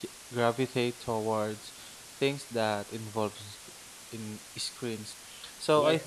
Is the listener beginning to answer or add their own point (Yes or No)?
No